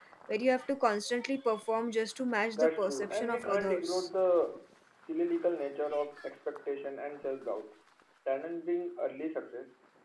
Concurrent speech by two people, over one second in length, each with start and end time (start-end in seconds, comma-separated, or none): 2.5-4.1